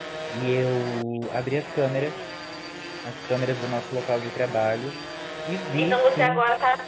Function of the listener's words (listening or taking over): taking over